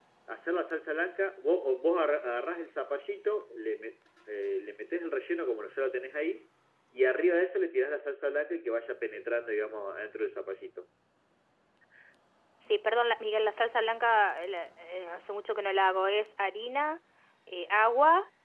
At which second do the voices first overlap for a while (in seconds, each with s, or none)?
none